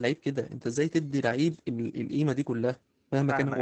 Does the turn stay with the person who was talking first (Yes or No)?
No